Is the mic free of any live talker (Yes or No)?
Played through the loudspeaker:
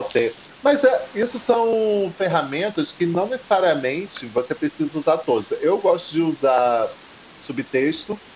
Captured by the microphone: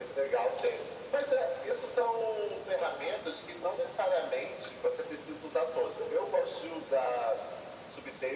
Yes